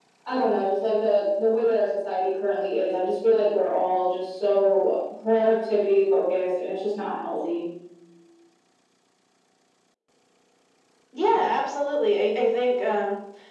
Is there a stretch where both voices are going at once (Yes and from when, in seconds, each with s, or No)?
No